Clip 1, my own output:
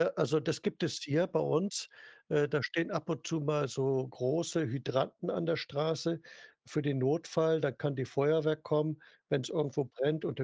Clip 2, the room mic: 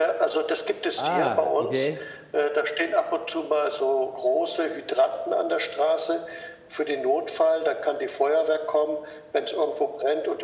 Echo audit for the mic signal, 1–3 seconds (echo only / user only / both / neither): both